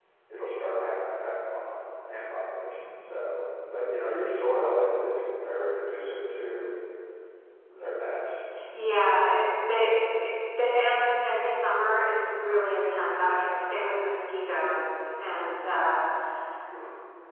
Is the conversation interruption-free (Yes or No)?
Yes